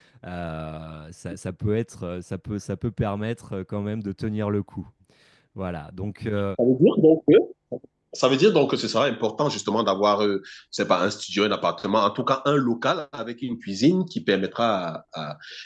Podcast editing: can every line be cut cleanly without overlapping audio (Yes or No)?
Yes